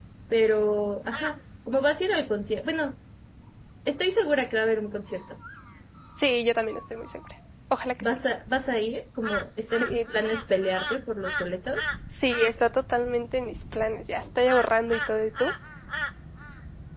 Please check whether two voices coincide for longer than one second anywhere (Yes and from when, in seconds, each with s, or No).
No